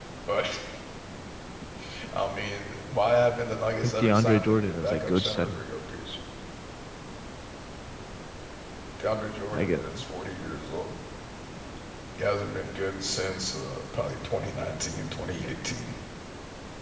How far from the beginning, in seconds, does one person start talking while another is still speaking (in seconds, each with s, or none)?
3.8 s